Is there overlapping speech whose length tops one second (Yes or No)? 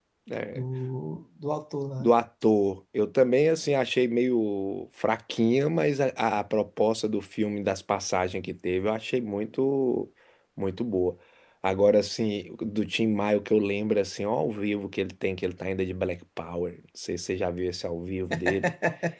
No